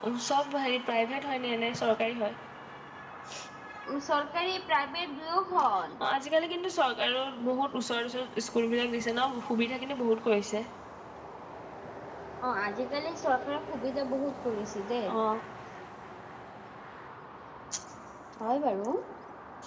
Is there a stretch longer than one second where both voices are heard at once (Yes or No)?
No